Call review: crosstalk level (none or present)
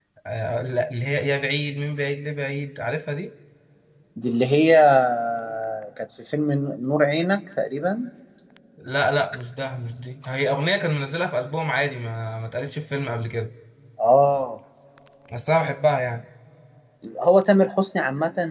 none